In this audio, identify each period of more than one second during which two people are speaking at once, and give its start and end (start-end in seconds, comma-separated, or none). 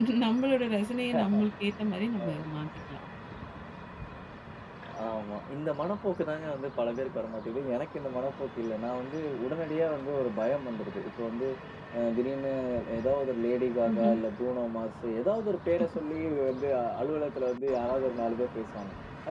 none